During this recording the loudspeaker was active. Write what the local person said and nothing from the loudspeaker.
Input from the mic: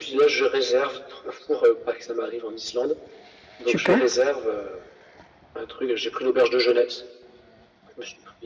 Super!

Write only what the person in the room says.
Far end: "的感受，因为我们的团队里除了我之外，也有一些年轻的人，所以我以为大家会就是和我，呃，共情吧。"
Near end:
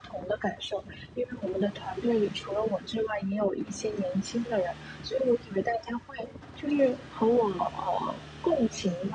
none

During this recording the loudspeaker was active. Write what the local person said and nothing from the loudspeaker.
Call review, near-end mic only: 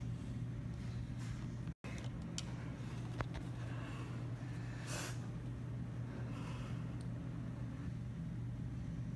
none

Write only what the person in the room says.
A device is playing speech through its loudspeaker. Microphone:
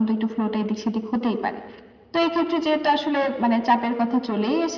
none

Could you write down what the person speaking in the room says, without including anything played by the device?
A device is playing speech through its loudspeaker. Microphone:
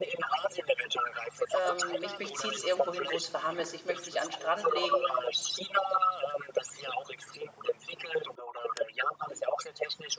Ähm, mich mich zieht's irgendwo hin, wo's warm ist. Ich möcht mich an 'n Strand legen

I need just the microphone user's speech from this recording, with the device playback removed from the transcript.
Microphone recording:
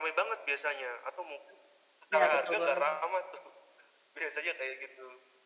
Iya, betul banget.

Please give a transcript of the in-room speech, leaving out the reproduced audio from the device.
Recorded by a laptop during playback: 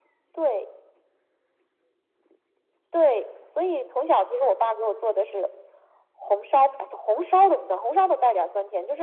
none

